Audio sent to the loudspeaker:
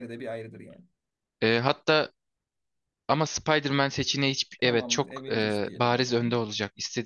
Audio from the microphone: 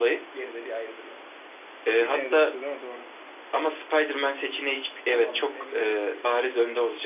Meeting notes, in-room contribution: present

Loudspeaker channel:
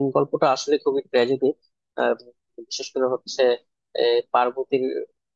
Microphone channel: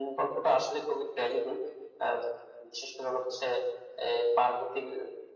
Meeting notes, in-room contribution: none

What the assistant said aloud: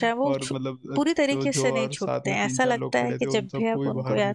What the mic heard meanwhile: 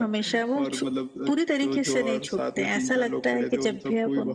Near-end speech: none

